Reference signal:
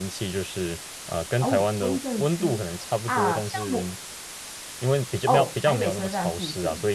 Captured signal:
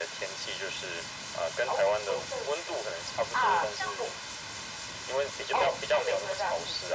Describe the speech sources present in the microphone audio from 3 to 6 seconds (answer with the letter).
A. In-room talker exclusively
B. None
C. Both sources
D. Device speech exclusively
D